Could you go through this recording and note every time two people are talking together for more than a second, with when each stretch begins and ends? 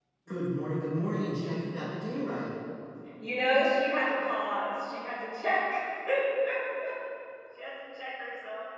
none

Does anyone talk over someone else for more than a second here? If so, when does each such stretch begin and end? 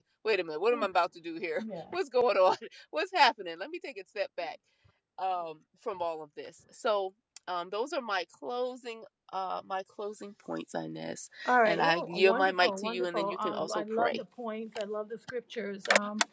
11.4-14.2

